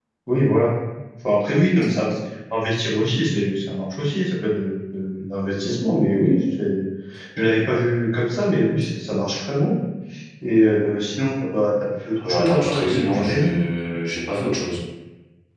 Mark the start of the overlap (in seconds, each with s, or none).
12.2 s